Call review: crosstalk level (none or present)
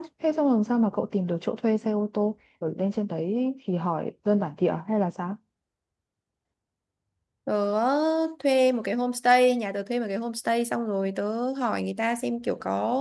none